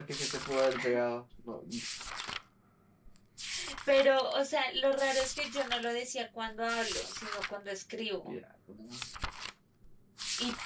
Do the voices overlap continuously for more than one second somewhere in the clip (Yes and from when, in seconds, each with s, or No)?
No